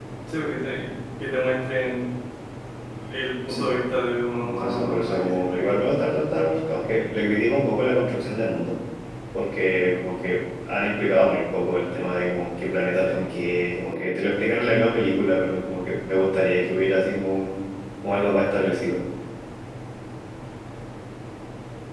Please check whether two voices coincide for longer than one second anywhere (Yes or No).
Yes